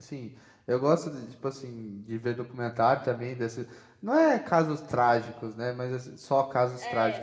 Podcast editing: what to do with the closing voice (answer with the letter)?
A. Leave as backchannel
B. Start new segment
A